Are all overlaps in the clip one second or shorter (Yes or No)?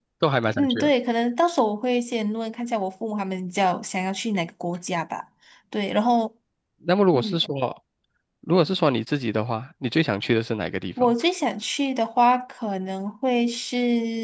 Yes